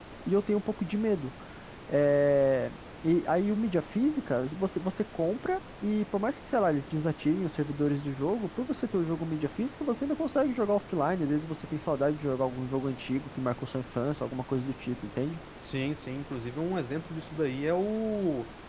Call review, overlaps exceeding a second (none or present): none